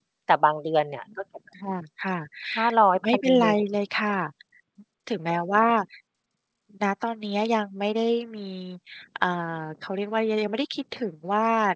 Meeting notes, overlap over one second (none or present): none